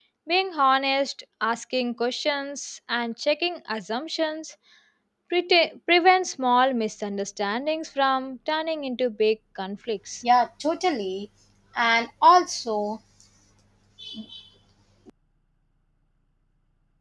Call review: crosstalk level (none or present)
none